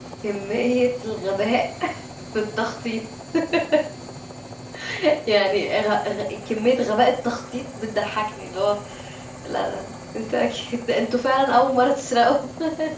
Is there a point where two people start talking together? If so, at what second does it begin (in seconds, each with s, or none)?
none